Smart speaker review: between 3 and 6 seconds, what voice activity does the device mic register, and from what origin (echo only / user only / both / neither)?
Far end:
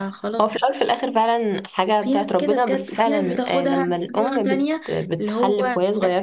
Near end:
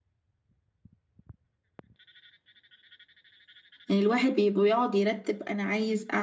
user only